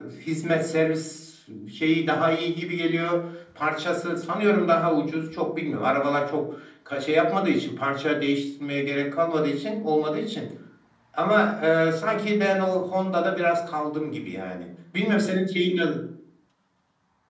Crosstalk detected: No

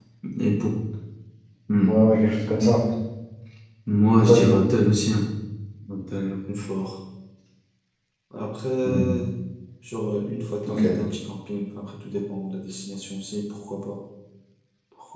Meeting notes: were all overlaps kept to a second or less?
Yes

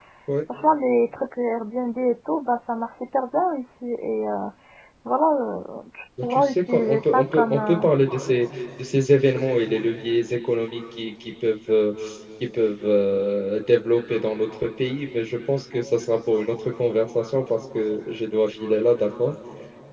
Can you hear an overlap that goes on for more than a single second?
Yes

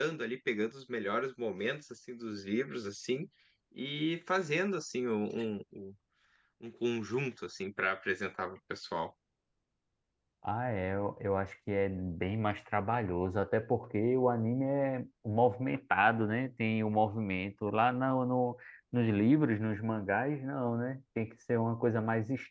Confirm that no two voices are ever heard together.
Yes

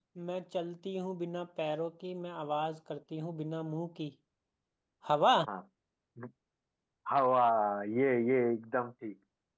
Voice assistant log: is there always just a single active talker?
Yes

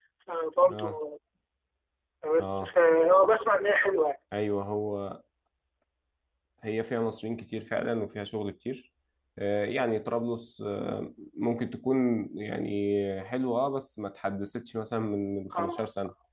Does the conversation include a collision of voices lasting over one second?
No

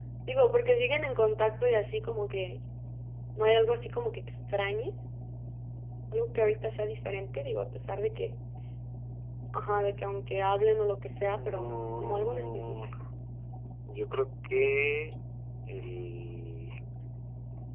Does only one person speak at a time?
No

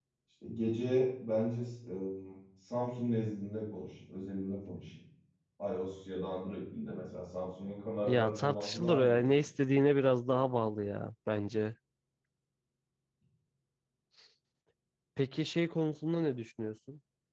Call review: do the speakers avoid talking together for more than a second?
No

